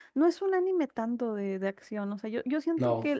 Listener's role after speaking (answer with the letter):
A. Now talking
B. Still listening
B